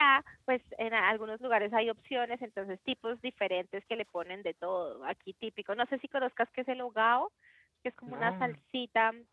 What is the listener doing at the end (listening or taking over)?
listening